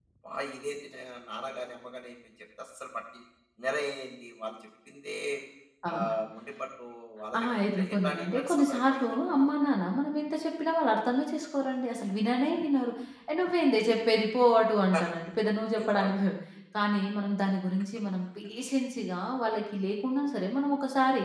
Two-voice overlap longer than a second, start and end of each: 7.4-9.5

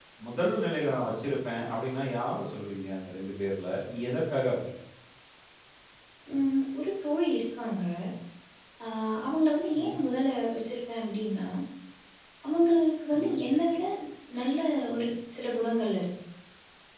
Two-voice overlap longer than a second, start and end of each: none

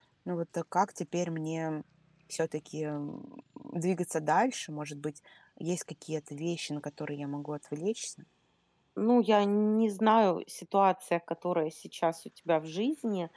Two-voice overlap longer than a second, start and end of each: none

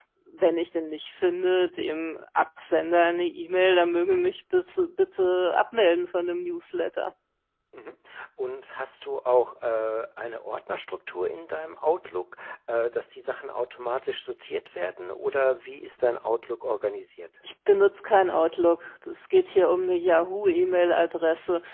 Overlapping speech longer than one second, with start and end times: none

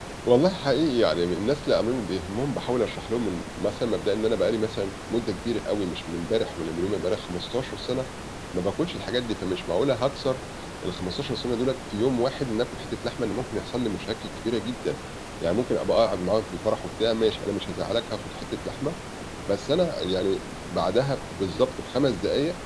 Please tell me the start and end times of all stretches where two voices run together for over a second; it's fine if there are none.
none

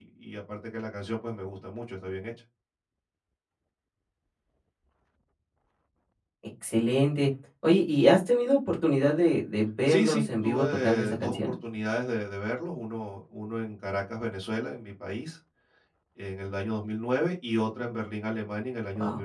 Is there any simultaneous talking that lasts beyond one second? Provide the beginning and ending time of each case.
9.9-11.5

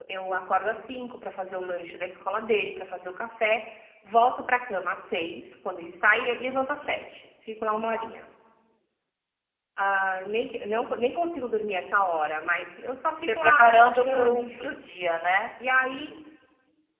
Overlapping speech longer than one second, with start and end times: 13.2-14.8

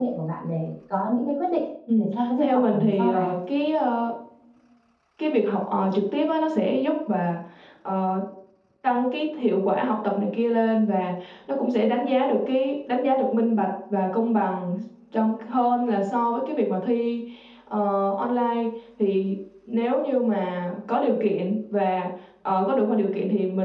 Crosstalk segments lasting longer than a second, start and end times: 2.0-3.3

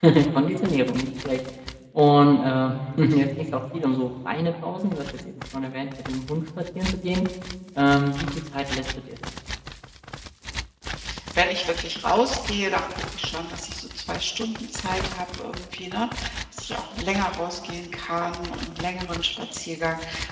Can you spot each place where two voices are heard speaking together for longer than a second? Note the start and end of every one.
none

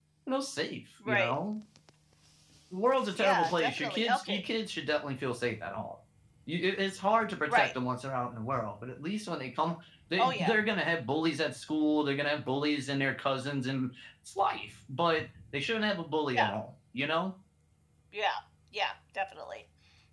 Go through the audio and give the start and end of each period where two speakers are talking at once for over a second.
3.2-4.4

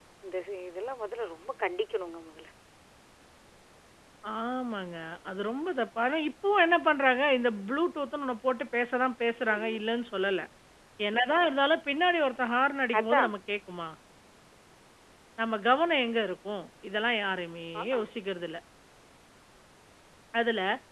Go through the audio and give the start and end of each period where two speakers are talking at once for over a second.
none

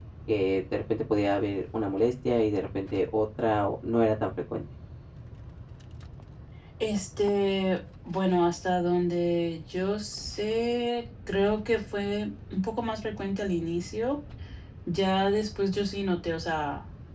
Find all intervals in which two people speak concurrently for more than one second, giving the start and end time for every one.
none

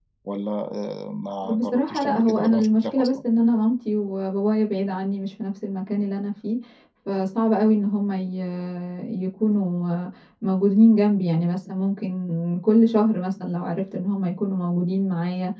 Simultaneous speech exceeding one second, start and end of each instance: 1.5-3.2

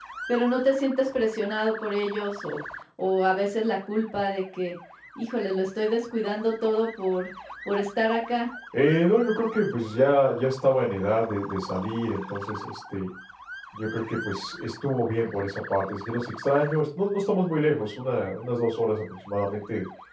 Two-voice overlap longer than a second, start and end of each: none

